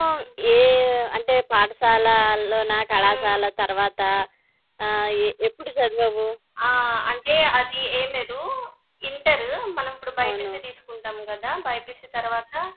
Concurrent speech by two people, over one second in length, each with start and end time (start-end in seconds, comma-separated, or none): none